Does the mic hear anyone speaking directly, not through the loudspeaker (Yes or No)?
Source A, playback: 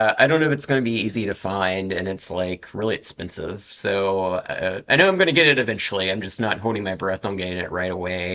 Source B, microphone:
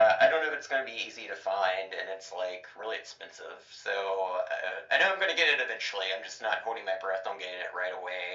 No